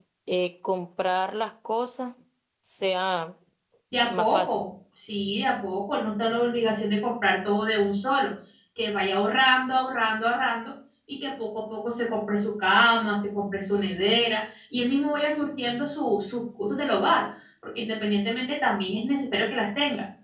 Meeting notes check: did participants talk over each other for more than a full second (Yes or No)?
No